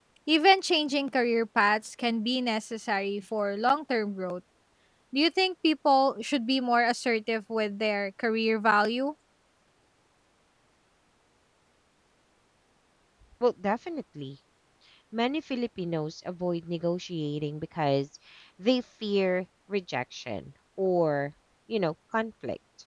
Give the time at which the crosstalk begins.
none

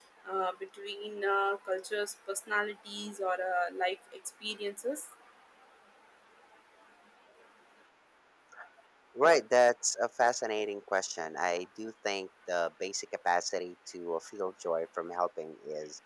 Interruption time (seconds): none

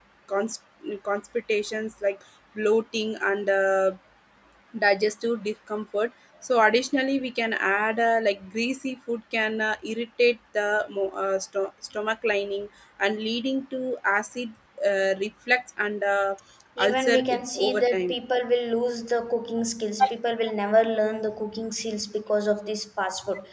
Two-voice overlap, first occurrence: 17 s

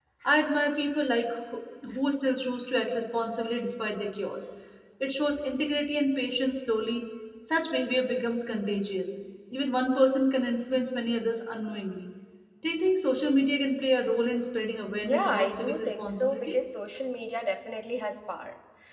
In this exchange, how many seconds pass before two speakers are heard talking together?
15 s

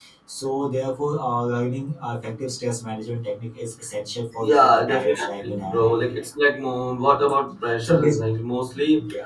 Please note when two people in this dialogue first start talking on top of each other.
4 s

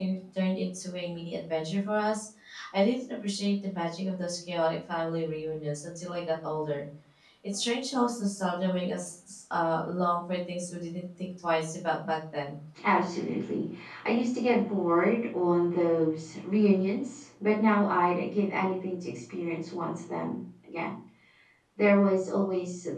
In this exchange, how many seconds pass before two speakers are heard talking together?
none

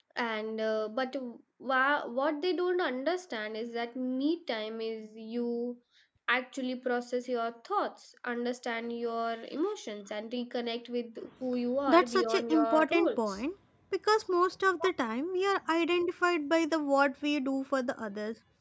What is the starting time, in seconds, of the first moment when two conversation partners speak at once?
12 s

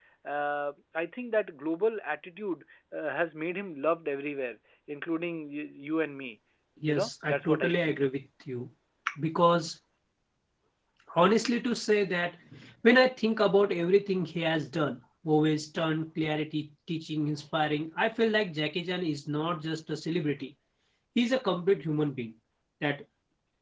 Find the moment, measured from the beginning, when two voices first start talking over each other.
7 s

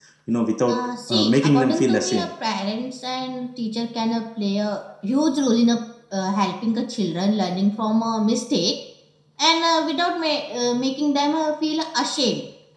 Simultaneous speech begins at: 1 s

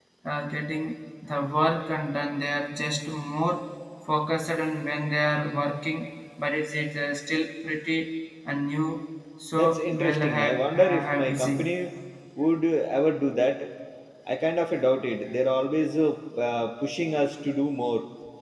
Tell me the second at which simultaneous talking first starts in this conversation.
10 s

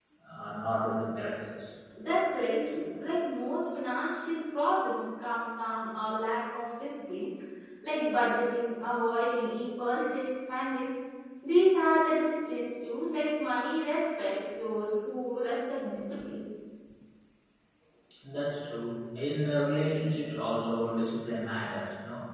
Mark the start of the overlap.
none

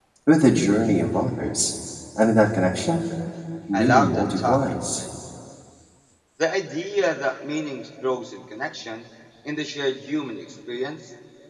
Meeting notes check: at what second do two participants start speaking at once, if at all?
4 s

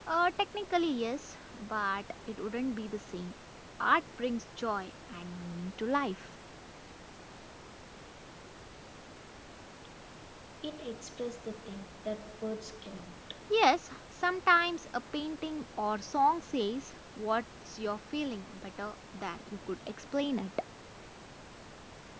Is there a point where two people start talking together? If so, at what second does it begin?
none

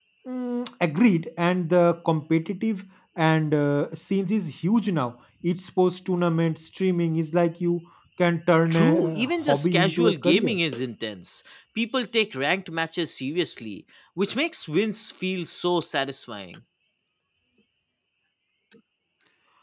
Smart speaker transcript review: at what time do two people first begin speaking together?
9 s

